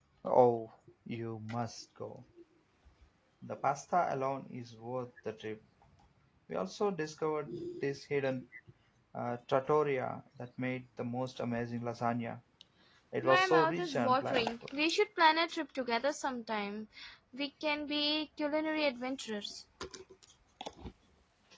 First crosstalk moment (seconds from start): 13.2 s

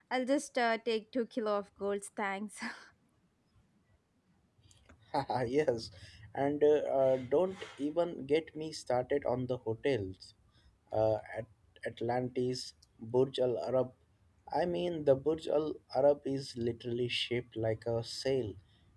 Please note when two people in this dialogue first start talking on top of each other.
none

